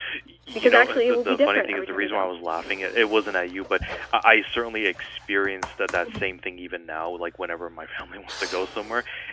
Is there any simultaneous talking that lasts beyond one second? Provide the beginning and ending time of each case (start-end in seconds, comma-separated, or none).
0.6-2.3